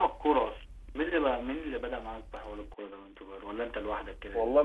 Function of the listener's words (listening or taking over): taking over